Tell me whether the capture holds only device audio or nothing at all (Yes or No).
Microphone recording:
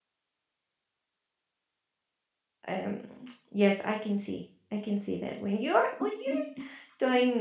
No